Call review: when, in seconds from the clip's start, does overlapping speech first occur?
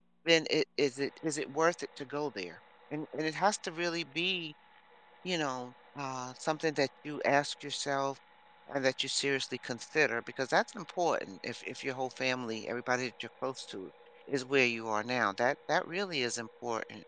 none

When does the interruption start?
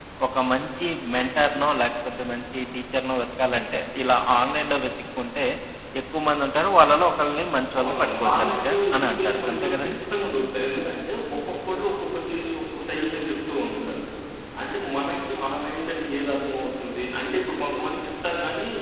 7.8 s

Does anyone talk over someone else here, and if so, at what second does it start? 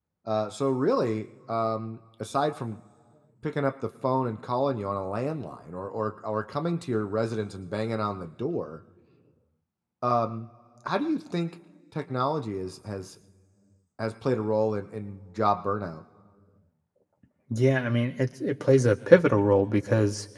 none

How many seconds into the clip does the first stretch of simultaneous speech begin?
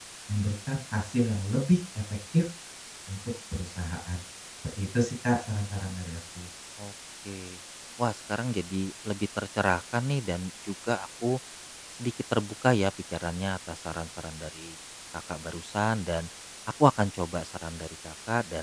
none

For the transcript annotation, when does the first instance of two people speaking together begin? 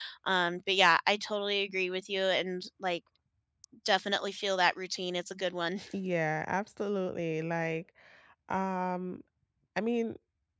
none

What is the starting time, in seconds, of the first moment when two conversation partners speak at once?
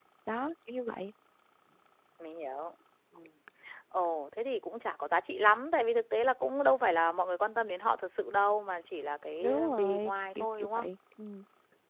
9.4 s

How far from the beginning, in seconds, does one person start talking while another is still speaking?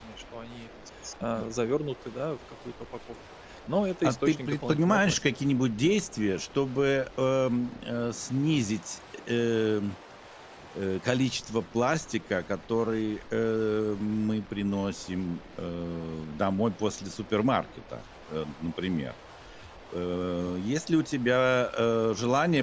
4.0 s

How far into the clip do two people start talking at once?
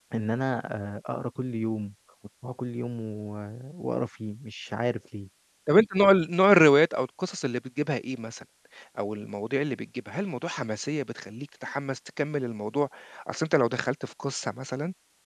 none

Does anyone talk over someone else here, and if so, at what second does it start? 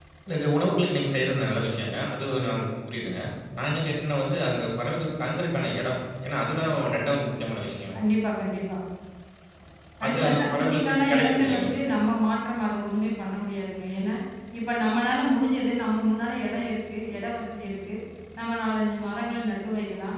10.0 s

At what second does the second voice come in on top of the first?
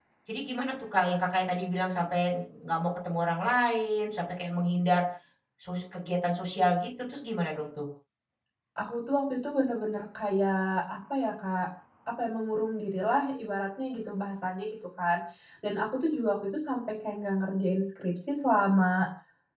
none

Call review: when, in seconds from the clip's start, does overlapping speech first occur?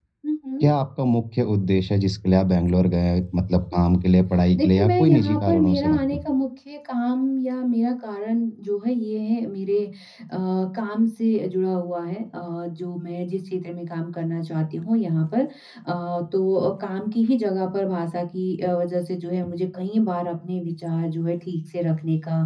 4.6 s

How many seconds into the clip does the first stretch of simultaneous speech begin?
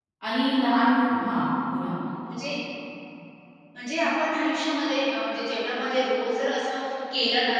none

